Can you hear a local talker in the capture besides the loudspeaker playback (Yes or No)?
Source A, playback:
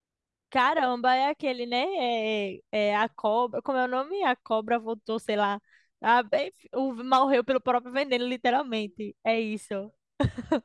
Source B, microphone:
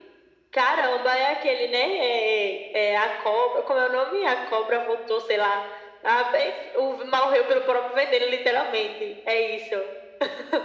No